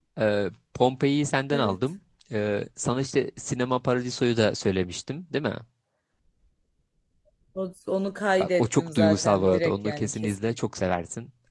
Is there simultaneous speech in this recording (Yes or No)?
Yes